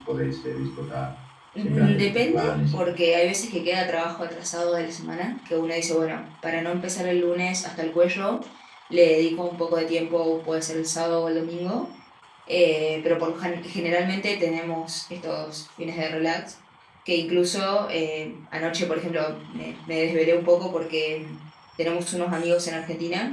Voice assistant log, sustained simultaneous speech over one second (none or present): present